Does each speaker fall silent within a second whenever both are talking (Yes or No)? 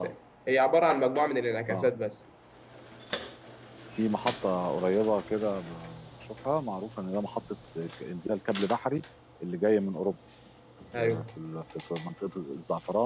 Yes